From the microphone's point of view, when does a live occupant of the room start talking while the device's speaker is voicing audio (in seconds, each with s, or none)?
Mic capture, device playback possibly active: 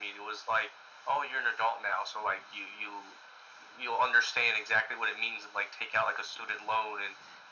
none